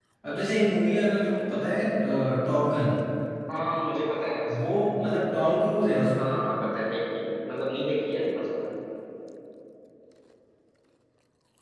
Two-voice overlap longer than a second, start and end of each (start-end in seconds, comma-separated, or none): none